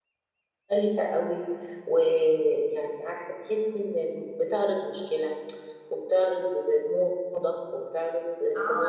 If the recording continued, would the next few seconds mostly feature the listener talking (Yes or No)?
Yes